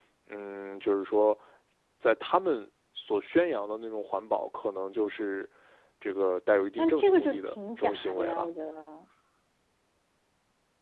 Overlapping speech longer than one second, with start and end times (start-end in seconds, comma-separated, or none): 6.8-8.5